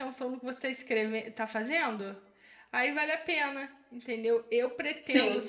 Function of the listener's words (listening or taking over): listening